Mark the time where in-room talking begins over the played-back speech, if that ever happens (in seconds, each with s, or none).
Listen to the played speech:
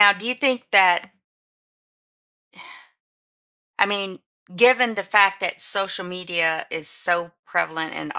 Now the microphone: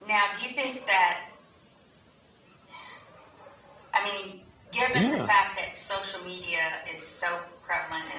4.9 s